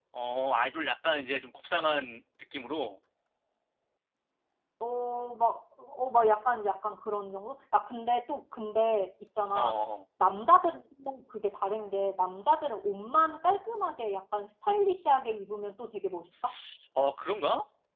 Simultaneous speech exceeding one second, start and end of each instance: none

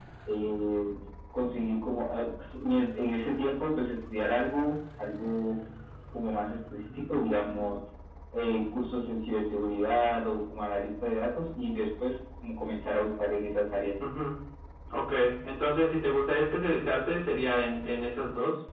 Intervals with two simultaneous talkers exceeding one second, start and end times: none

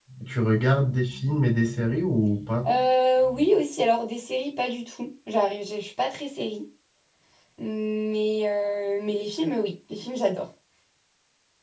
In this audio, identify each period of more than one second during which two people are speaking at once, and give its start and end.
none

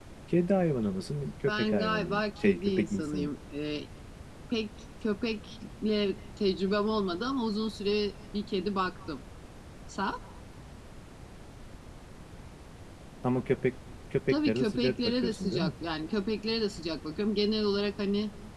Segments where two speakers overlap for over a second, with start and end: 1.5-3.3, 14.3-15.7

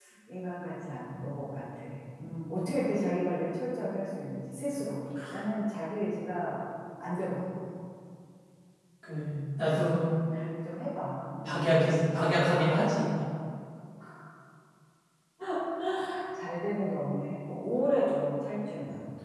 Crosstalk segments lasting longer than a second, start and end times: none

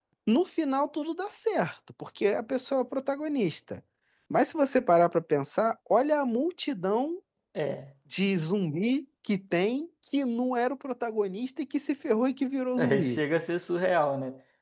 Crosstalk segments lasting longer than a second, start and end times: none

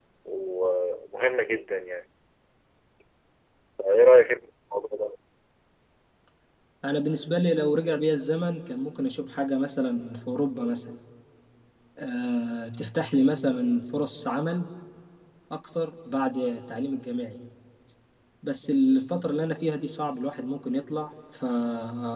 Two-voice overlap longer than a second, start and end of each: none

